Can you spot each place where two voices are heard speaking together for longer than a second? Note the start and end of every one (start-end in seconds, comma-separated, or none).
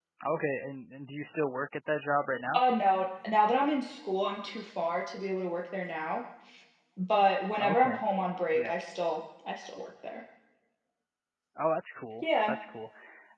none